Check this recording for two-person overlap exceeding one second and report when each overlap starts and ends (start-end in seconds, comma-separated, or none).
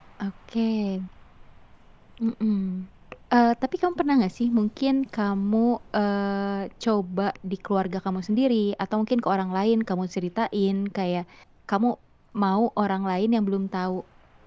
none